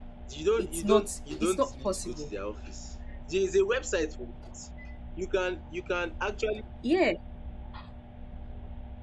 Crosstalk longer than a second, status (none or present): present